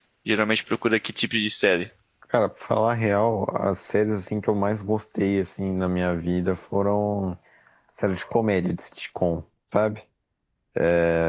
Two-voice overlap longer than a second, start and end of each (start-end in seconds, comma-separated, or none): none